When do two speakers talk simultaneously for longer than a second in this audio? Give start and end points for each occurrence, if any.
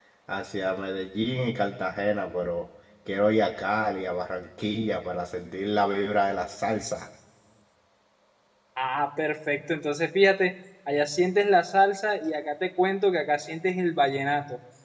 none

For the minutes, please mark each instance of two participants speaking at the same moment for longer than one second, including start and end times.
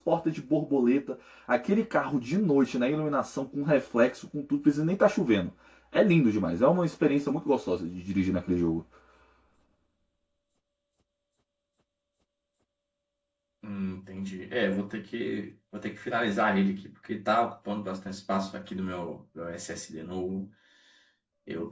none

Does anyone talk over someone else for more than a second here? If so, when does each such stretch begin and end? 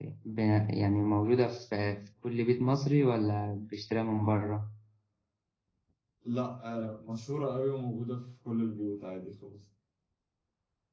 none

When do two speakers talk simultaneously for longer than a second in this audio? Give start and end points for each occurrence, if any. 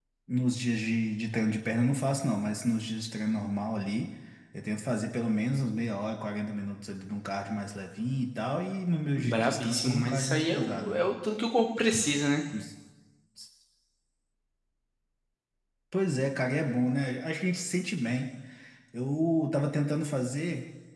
9.2-11.1

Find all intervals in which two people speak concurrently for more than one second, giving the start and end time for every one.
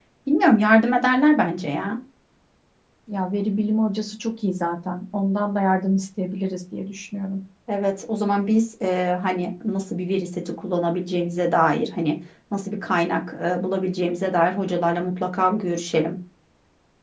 none

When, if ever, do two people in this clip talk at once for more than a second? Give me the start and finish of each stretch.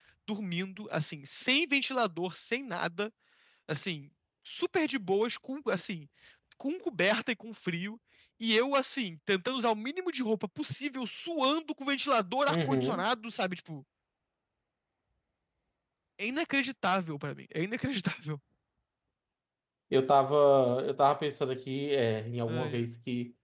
none

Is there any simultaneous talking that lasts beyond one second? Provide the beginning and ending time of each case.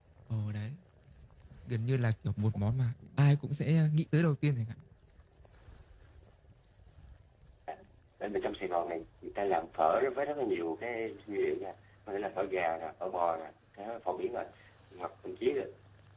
none

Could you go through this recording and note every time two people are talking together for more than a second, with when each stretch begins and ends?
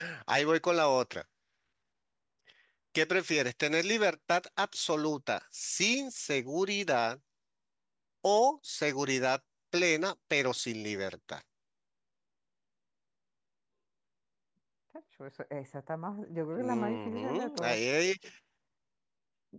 16.6-17.8

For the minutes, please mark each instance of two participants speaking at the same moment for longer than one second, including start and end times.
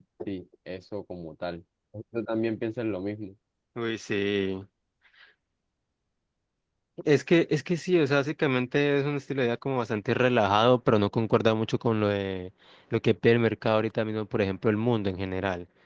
none

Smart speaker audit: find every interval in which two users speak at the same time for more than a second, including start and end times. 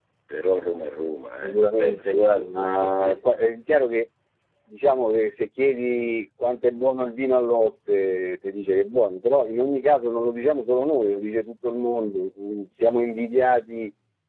1.4-3.2

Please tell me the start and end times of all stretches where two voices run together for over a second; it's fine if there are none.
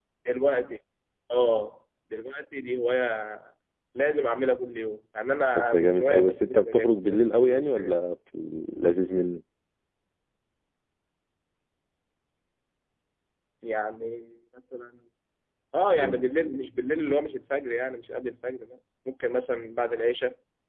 5.5-7.9

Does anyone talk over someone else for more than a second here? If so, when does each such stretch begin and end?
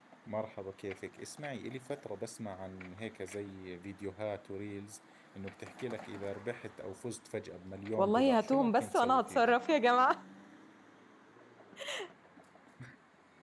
8.0-9.5

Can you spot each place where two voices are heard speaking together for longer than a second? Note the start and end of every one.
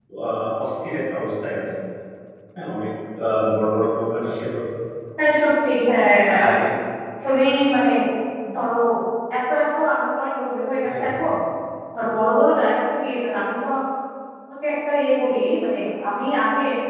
none

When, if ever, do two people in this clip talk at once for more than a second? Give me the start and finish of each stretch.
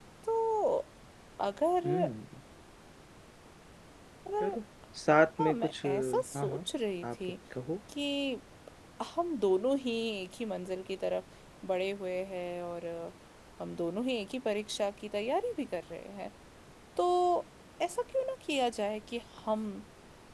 5.4-6.6

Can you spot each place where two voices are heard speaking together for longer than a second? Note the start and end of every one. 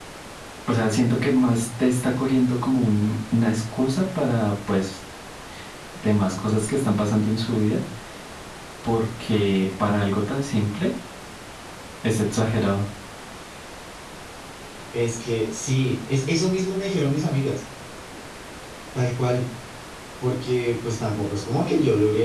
none

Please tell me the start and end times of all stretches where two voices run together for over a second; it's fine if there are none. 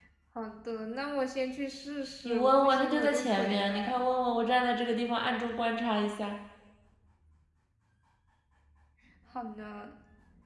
2.2-4.0

